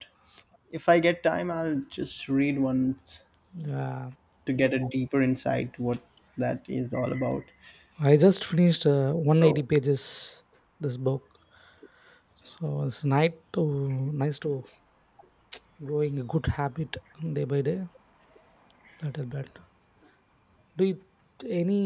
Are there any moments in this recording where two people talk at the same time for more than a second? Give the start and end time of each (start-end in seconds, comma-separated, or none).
none